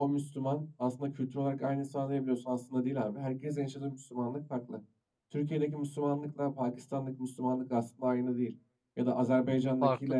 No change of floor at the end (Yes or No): Yes